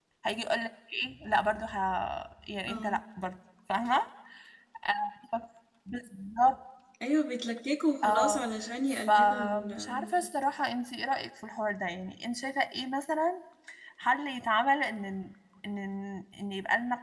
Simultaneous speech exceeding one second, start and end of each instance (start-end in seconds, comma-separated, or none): 8.9-10.3